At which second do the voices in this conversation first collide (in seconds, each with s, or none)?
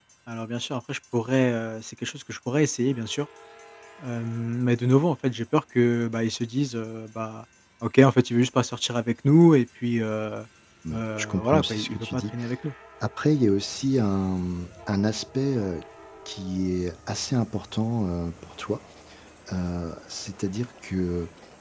10.9 s